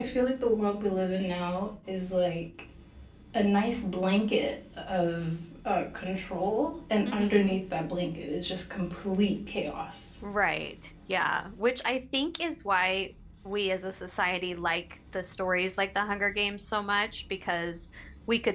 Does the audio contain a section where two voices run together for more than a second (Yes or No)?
No